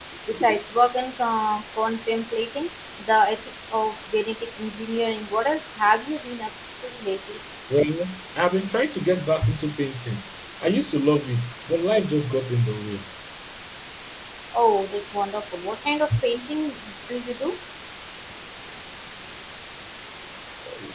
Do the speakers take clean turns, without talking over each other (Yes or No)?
Yes